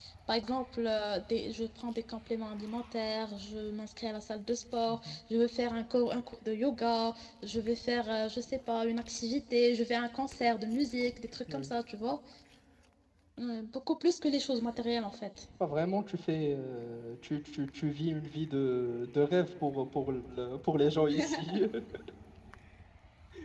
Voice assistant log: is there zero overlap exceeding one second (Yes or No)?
Yes